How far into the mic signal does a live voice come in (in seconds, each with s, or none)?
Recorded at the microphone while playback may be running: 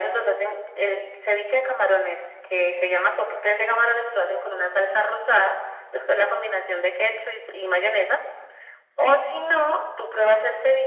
none